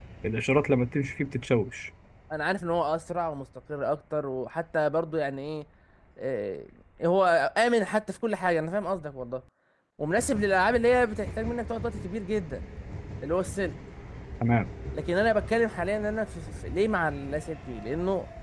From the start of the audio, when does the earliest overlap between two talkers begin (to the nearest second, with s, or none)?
none